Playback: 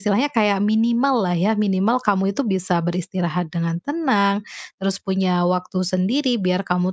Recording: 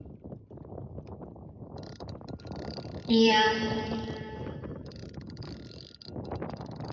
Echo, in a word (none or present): none